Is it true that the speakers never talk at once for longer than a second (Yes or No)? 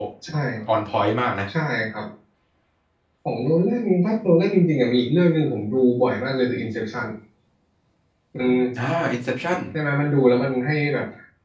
Yes